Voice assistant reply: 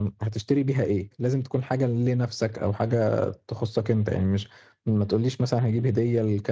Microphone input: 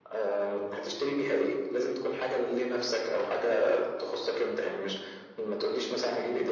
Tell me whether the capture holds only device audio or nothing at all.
Yes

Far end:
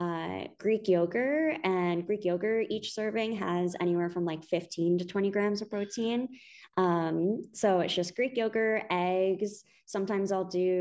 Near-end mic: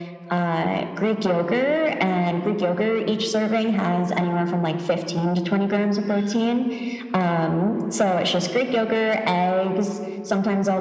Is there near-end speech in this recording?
No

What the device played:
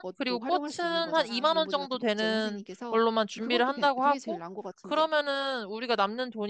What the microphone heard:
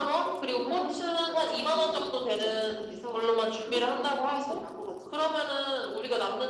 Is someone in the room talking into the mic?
No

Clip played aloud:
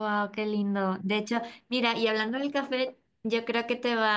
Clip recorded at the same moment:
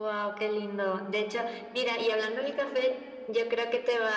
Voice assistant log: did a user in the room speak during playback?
No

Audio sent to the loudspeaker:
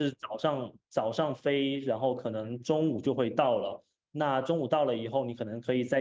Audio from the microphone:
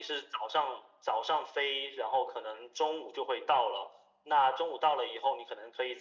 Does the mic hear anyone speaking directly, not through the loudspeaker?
No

